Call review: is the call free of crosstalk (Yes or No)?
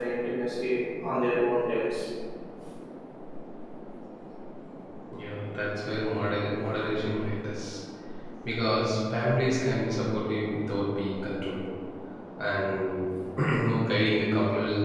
Yes